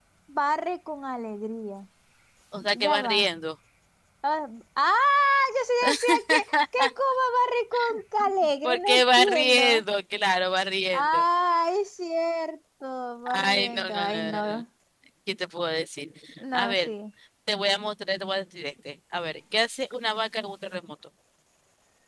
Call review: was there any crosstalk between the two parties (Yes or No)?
Yes